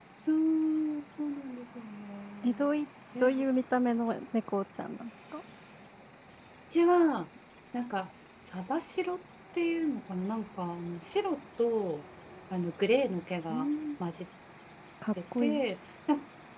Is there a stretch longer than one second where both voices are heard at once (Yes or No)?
No